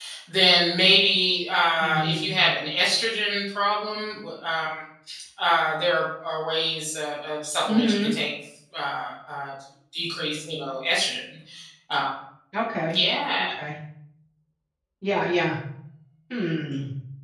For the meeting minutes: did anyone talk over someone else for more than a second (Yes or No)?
No